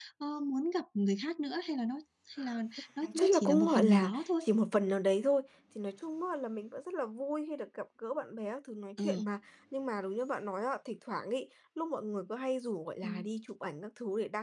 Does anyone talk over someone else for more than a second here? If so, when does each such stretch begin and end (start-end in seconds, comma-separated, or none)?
3.0-4.4